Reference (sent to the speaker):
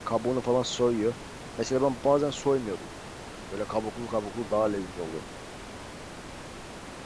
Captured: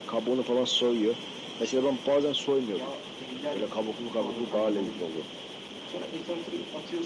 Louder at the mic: echo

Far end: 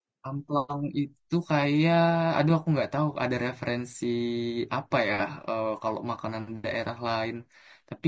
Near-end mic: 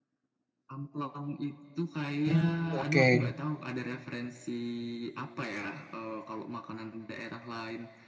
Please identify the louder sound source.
user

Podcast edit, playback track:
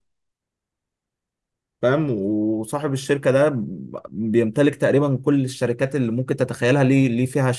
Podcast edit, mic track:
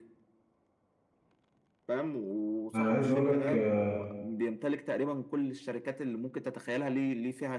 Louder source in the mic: user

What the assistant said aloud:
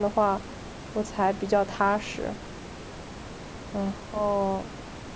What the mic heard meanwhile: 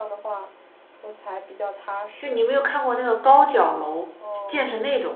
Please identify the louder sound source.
user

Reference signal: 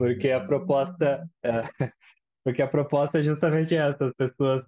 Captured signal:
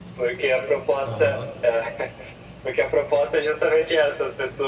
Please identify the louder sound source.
echo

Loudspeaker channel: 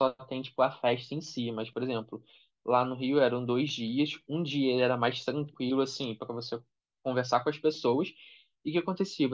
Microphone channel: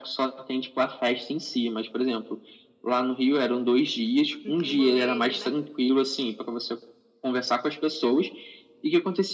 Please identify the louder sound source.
echo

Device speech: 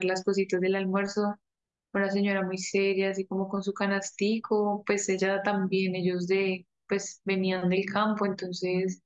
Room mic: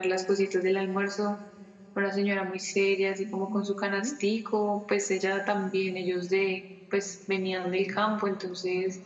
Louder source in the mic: echo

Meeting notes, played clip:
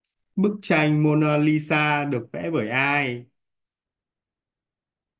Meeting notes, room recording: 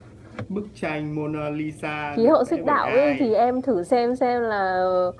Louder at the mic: user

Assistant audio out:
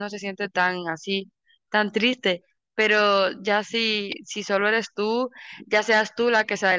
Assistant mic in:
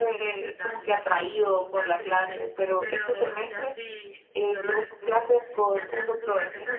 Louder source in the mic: user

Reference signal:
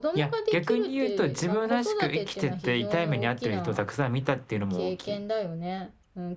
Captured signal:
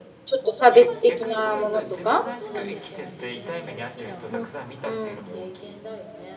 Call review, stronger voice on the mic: user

